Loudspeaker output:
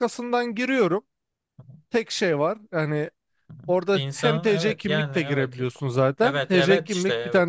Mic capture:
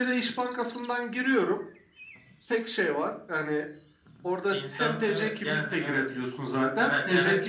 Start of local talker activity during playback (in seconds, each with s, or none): none